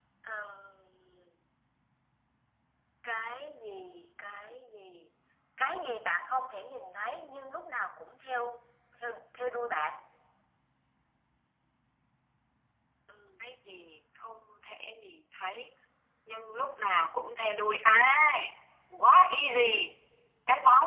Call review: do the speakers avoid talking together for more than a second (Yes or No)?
Yes